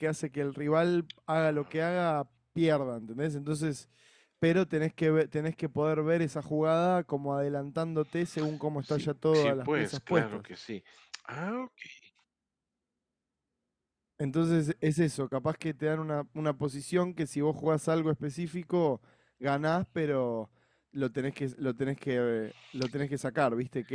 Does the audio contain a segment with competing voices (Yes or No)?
Yes